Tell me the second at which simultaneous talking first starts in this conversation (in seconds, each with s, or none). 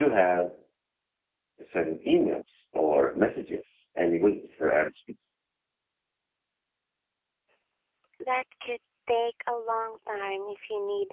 none